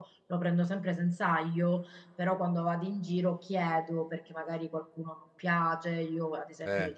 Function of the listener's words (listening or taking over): listening